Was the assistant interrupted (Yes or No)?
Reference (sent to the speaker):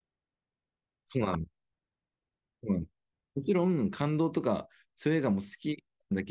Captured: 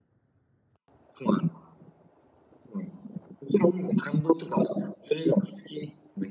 No